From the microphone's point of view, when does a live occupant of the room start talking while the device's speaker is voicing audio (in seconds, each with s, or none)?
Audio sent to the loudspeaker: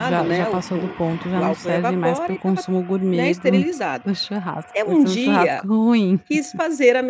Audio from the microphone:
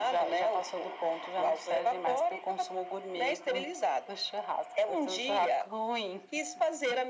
none